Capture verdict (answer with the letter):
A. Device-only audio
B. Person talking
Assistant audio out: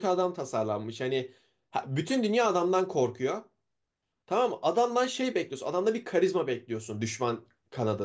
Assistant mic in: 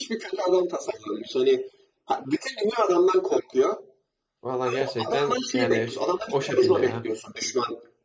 B